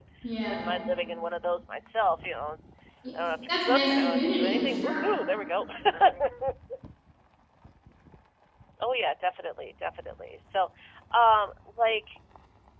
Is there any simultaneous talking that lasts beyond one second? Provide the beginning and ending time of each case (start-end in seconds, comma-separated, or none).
3.7-5.1